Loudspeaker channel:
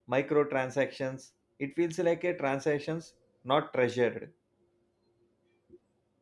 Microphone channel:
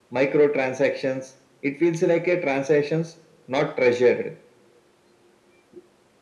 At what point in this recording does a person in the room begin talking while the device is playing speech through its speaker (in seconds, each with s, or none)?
none